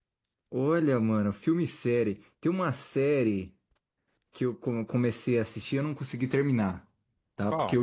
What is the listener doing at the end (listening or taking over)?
listening